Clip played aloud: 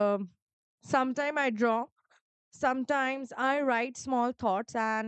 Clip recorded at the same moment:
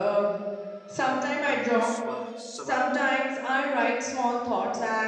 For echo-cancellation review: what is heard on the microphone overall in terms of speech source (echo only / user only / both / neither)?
both